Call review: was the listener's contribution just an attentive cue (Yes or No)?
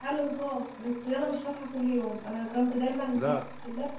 Yes